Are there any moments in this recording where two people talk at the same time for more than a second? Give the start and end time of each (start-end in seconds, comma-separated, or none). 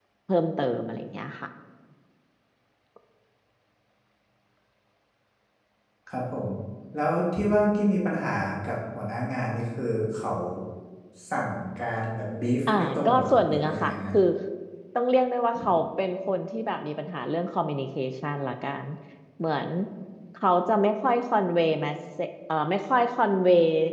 12.7-14.1